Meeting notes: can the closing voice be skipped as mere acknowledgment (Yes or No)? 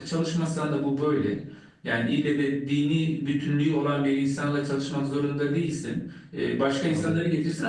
Yes